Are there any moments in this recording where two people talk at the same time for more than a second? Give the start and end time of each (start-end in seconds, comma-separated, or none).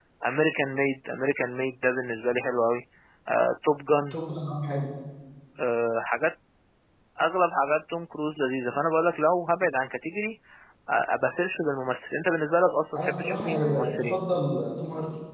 13.0-14.2